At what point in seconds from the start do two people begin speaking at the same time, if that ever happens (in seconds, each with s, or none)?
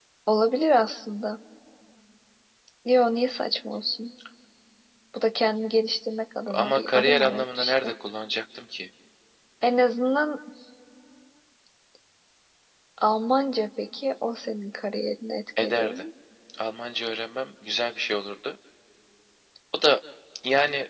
6.5 s